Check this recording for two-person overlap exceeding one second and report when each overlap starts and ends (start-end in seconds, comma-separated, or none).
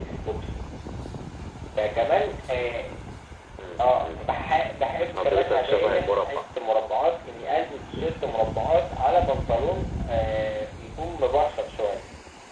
5.2-6.4